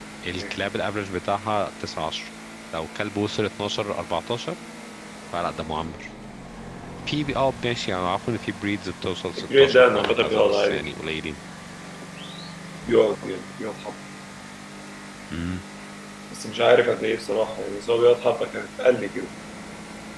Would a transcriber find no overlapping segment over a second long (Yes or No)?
No